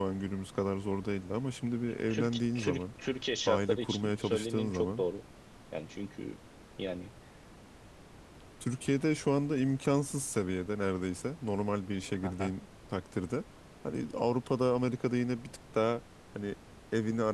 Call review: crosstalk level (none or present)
present